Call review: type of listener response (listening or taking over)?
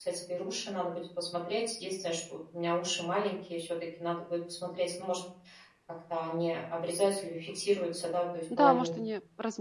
taking over